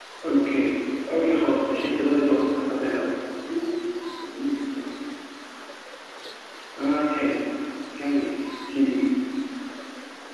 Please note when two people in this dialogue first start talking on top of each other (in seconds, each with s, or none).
none